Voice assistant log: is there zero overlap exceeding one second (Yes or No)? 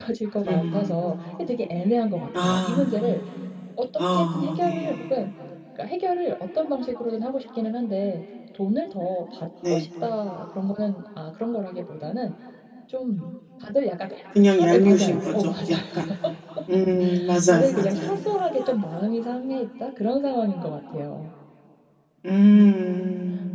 No